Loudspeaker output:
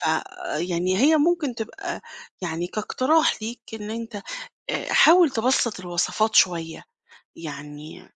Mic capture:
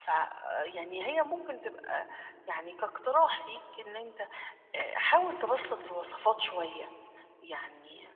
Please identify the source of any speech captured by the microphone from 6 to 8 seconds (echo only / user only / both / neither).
echo only